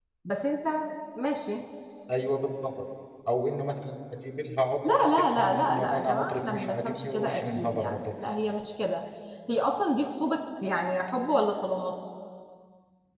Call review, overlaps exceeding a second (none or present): present